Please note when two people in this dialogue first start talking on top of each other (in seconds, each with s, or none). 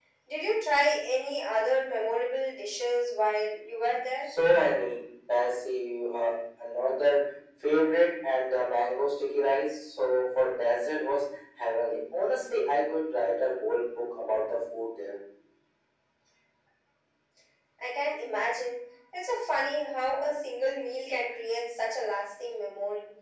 none